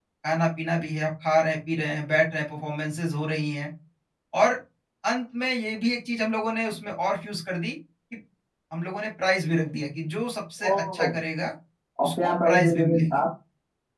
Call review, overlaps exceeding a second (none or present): present